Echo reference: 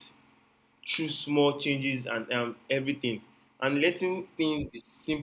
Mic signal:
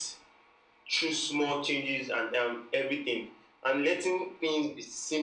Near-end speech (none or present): none